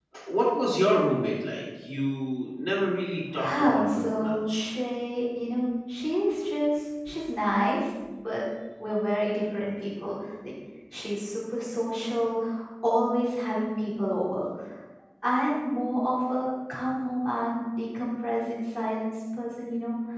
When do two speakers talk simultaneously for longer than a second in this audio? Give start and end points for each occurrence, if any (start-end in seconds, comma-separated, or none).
3.3-4.8